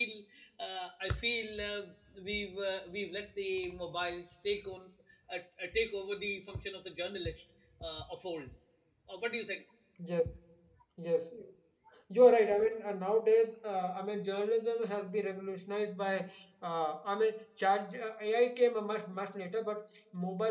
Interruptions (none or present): none